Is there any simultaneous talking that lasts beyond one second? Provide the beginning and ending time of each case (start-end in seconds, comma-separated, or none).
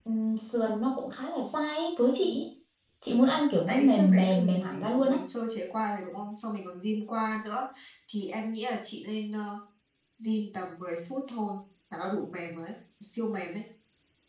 3.7-5.2